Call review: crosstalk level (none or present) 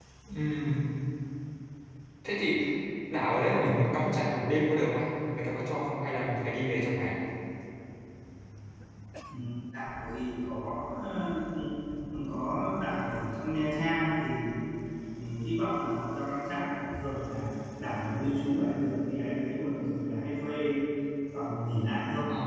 none